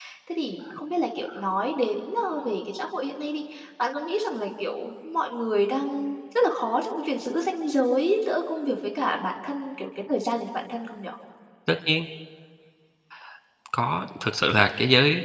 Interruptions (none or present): none